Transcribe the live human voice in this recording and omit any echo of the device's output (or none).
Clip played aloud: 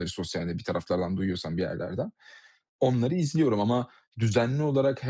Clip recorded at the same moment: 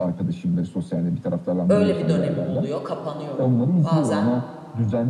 öyle bir dönemim oluyor, kapanıyorum. Bazen,